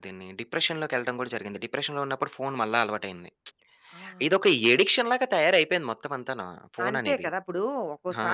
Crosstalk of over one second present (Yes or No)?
No